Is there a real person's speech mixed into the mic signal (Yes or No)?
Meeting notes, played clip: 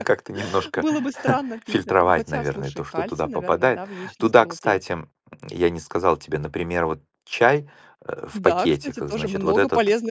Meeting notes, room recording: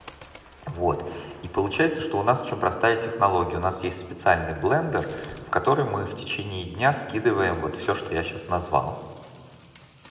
Yes